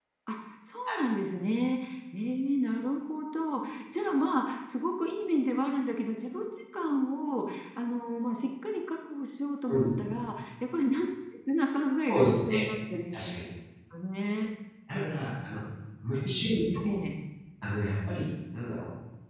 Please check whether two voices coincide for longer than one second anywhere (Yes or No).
No